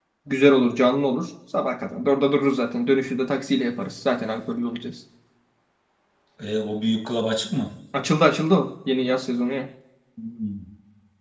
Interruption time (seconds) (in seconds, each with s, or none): none